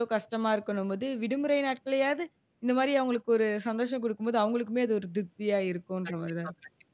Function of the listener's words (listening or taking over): taking over